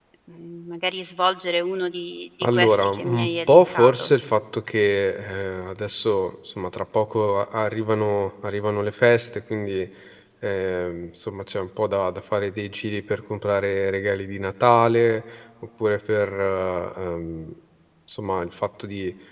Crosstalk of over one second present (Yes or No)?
Yes